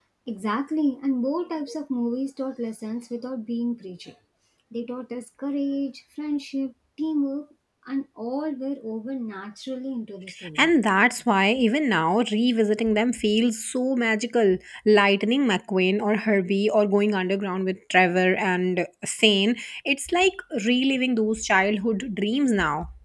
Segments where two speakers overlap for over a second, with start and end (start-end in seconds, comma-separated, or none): none